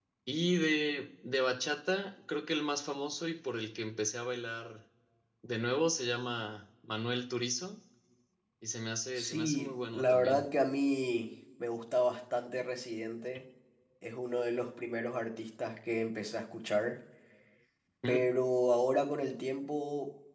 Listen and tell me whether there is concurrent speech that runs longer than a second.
Yes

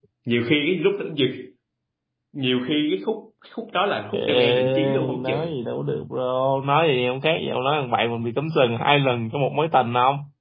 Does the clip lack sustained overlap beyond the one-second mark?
No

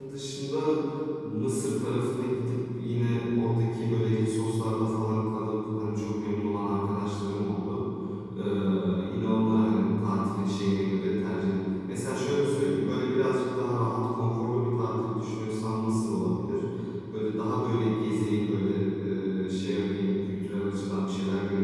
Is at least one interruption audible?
No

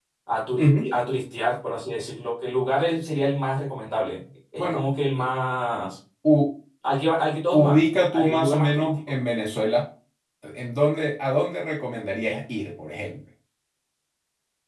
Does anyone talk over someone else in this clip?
Yes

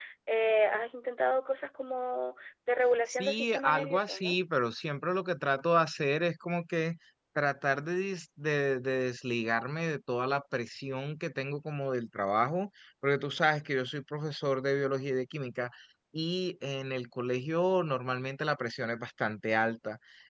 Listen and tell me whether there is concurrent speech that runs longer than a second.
Yes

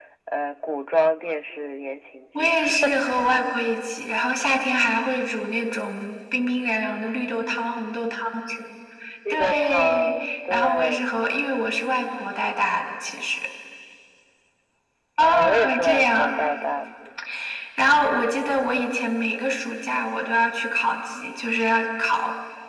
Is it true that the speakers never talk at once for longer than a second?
No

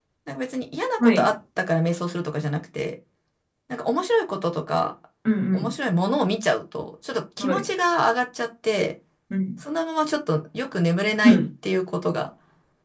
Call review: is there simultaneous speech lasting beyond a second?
No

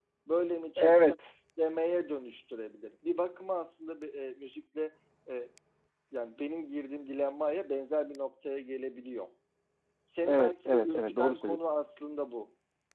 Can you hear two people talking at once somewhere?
Yes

